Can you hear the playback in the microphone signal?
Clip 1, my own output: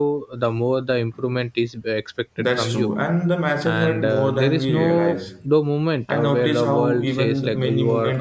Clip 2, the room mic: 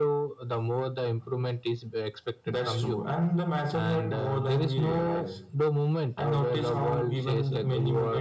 Yes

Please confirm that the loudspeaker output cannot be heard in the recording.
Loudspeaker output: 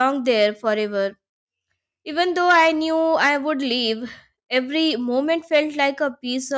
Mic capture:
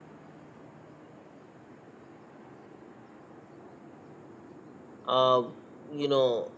Yes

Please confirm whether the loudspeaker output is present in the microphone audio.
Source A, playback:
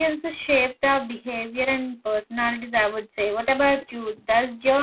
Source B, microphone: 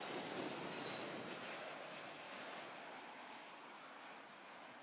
No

